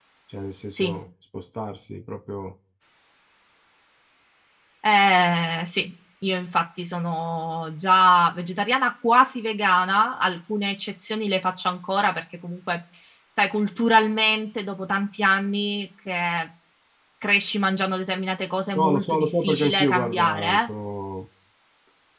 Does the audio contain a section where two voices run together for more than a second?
Yes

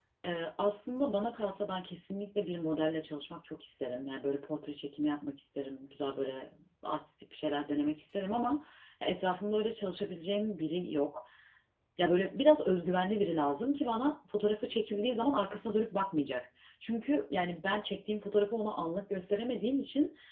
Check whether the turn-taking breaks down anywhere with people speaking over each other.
No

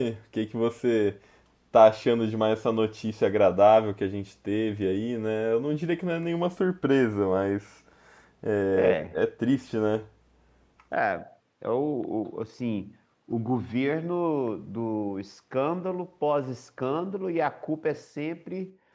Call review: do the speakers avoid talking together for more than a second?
Yes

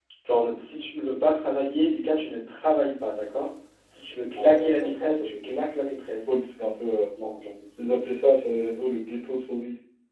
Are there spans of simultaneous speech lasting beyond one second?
Yes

